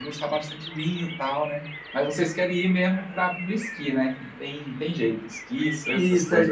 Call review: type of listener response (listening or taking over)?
taking over